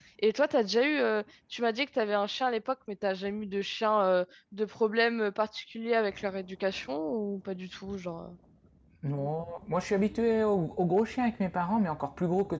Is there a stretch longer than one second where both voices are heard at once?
No

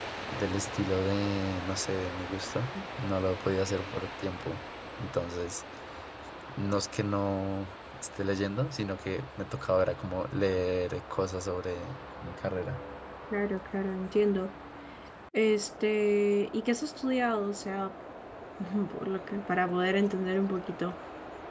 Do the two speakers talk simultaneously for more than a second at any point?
No

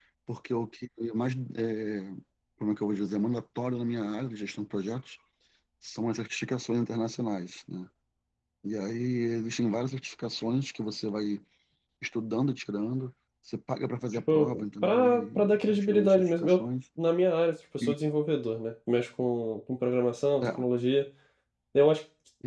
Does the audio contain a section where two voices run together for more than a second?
Yes, from 14.3 s

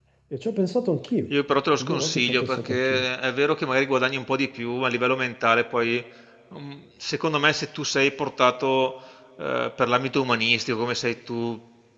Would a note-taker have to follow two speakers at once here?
Yes, from 1.8 s

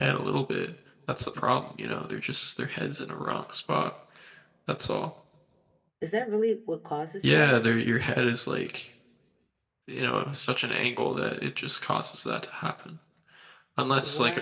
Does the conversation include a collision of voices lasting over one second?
No

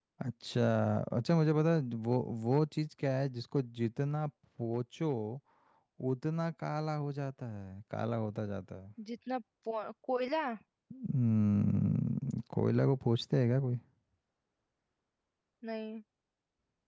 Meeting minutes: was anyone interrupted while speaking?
No

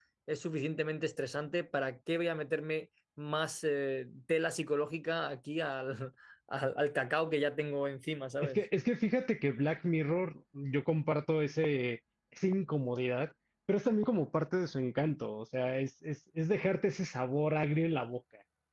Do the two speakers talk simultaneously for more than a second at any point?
No

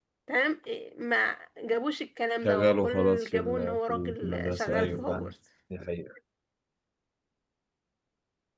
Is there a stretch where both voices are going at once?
Yes, from 2.4 s

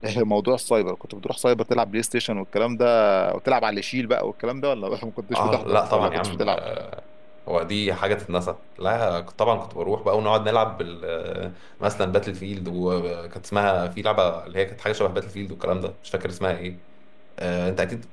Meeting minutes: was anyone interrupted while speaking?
Yes, from 5.3 s

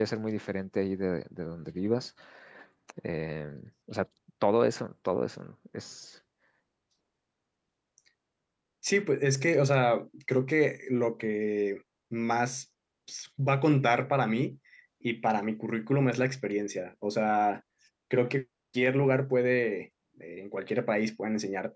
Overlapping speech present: No

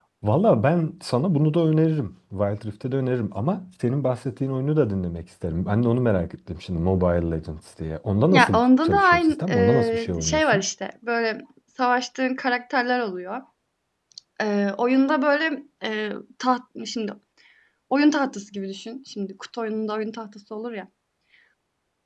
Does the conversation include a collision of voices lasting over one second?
Yes, from 8.3 s

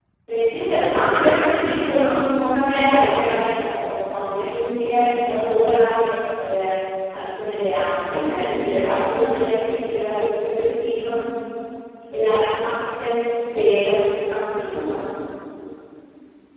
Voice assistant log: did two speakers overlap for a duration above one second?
Yes, from 0.6 s

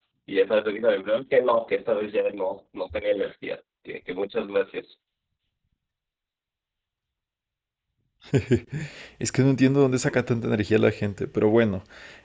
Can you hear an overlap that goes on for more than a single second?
No

